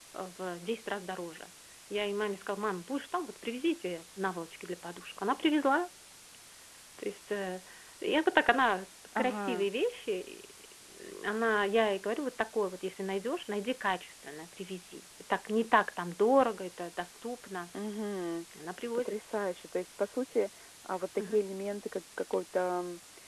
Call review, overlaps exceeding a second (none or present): none